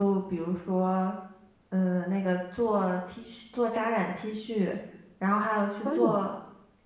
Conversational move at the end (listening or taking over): listening